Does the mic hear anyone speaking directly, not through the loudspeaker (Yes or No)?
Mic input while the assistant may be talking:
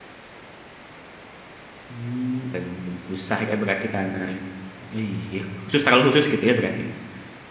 Yes